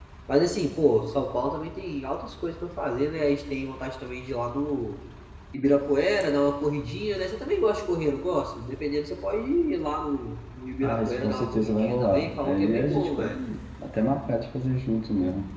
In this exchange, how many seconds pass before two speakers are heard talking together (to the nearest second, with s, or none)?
11 s